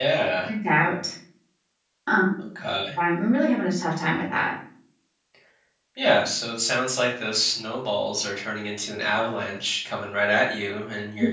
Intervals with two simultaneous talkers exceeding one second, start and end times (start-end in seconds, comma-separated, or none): none